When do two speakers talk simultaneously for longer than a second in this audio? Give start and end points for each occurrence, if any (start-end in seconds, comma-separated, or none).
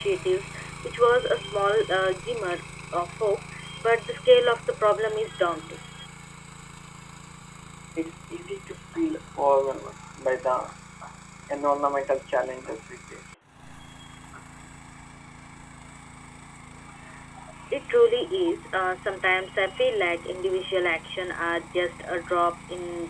none